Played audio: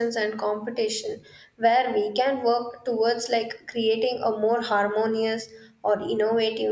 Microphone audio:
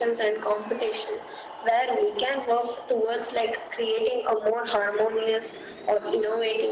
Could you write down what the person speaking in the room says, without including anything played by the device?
none

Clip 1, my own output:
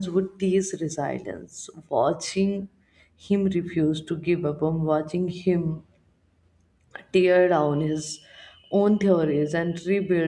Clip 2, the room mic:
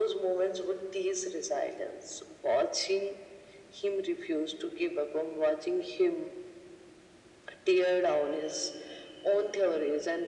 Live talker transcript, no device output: none

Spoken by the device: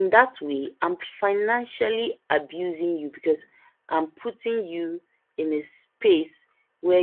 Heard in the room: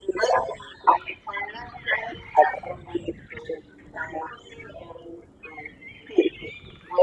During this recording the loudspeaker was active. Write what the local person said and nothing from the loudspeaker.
none

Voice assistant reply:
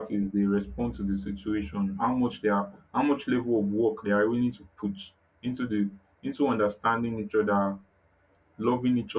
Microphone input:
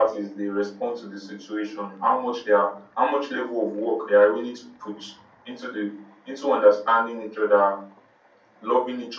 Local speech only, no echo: none

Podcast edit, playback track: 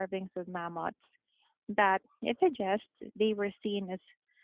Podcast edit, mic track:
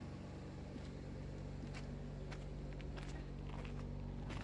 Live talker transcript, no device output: none

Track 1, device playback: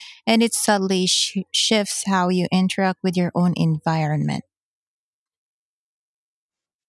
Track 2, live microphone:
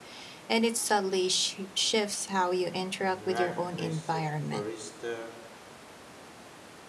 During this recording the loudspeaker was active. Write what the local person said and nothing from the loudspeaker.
You recognize the barista,

